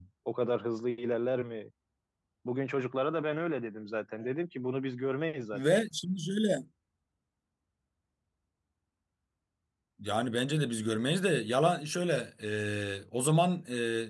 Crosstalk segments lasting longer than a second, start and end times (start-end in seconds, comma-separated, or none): none